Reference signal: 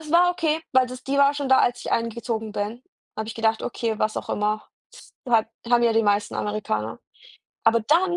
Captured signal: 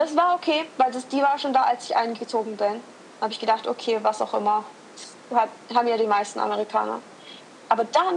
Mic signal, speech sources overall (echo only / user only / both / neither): echo only